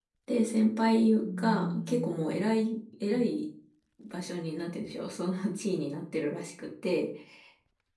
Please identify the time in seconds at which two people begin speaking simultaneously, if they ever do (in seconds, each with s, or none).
1.2 s